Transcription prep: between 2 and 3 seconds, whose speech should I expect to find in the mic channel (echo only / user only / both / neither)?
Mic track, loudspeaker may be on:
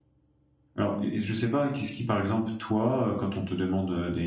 user only